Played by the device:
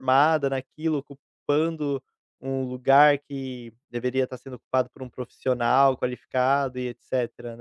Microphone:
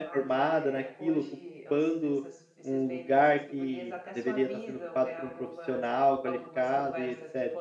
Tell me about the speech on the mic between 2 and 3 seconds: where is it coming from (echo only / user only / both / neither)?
both